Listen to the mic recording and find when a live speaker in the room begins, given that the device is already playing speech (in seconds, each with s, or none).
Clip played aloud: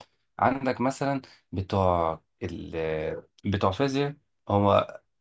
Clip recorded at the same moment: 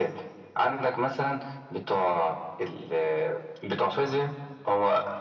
none